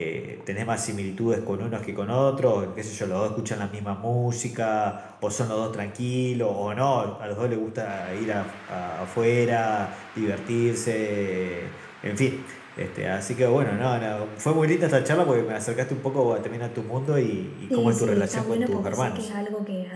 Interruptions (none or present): present